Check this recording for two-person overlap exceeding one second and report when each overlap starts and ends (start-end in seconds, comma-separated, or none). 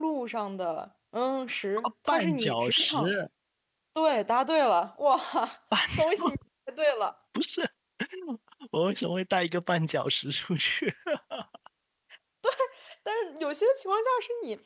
1.8-3.1